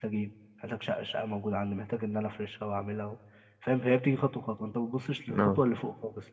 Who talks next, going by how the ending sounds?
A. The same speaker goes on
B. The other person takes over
A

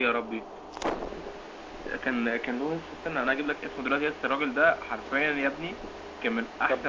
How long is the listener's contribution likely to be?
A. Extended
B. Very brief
A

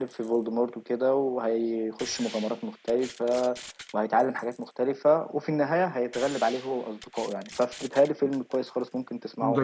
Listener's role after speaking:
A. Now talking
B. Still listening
A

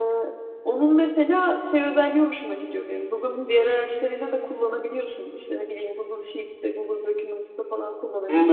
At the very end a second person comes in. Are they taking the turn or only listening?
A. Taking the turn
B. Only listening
A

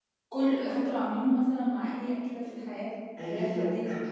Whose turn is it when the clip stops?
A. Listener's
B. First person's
A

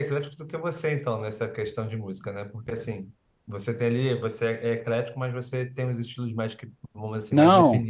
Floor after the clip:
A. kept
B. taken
B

